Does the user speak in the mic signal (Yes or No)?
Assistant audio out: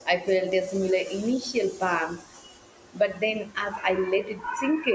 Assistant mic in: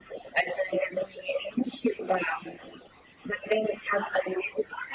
No